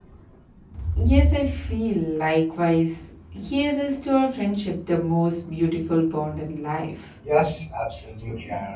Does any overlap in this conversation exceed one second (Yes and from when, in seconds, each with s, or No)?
No